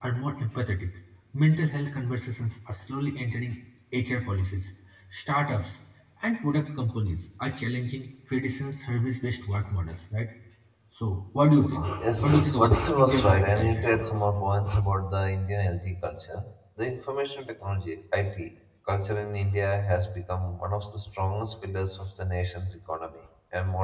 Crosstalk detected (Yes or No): Yes